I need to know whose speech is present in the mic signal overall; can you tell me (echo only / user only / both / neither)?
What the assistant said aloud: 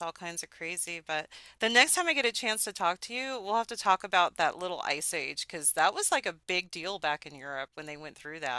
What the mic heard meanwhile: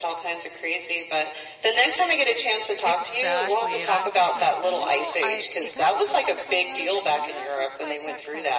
both